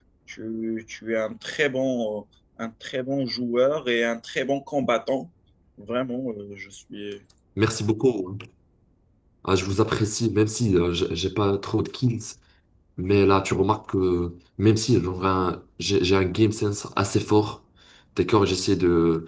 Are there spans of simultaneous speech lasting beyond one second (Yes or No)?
No